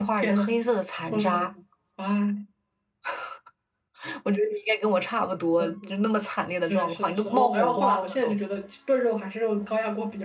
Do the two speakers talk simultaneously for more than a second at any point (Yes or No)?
Yes